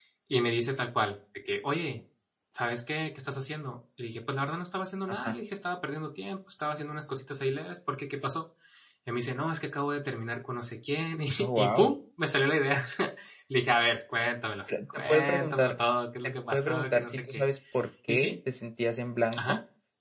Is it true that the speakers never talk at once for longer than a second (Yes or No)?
No